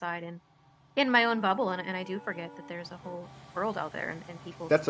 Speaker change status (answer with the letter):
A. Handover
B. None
A